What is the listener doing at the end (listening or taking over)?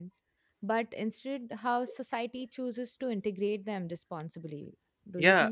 taking over